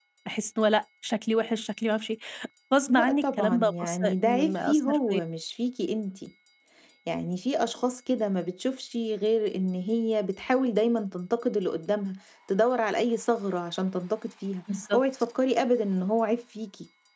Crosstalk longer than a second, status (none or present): present